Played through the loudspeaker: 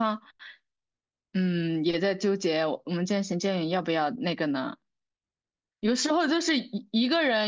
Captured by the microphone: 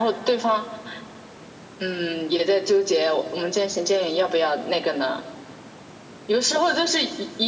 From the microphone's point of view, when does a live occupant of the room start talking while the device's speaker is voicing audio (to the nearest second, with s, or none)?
none